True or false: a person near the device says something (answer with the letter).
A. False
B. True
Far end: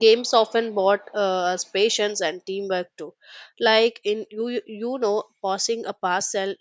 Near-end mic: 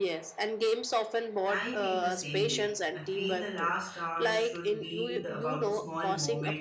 B